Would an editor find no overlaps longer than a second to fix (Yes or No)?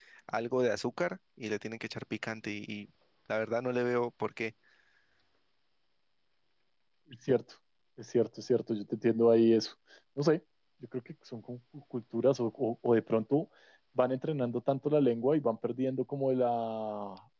Yes